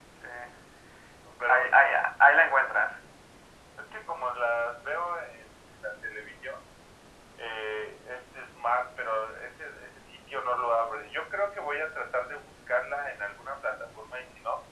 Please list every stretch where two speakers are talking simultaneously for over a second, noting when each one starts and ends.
none

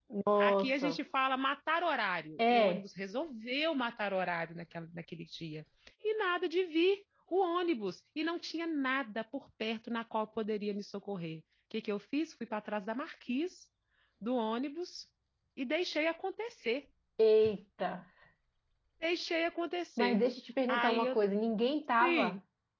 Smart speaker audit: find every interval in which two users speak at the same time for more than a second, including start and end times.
none

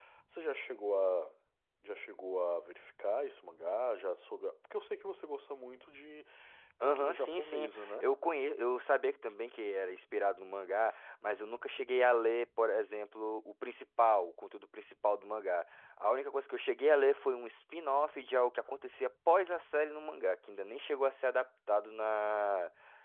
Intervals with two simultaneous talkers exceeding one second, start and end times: 6.8-8.1

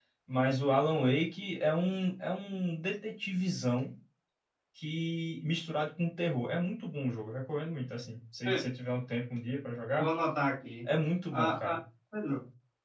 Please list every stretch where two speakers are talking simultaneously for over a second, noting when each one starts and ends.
none

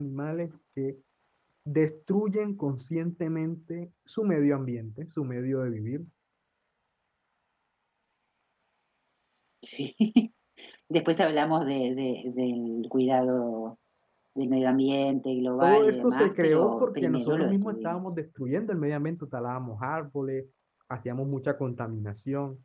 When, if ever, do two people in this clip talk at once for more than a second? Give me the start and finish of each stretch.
15.6-18.0

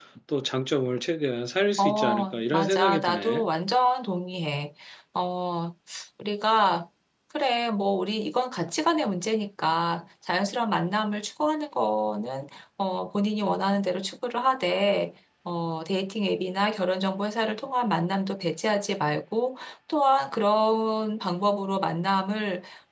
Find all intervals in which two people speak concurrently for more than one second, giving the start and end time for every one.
1.8-3.5

